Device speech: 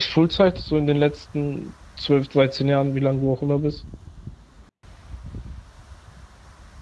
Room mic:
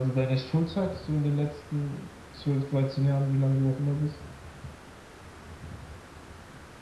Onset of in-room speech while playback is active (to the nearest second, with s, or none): none